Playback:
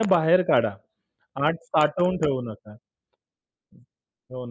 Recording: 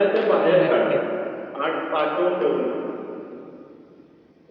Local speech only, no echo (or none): नक्कीच.